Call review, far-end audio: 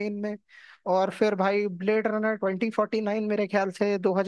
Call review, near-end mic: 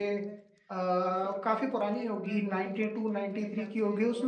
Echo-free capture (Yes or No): No